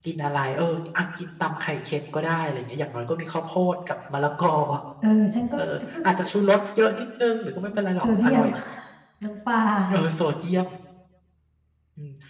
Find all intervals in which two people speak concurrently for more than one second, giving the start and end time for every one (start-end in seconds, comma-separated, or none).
none